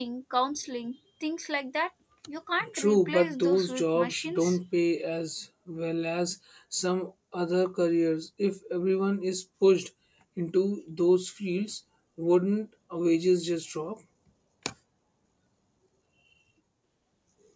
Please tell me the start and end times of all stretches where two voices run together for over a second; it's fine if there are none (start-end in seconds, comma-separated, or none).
2.7-4.6